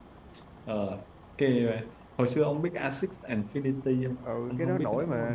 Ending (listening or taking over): taking over